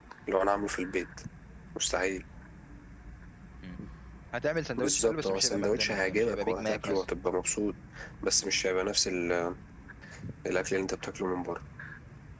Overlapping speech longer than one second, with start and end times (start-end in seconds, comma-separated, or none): 4.8-7.0